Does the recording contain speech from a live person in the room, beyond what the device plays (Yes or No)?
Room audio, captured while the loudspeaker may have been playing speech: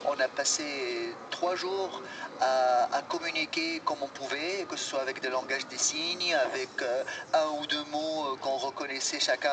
No